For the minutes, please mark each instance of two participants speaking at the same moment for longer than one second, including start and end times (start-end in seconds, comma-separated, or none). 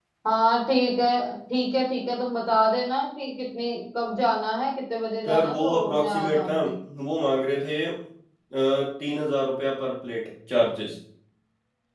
5.3-6.6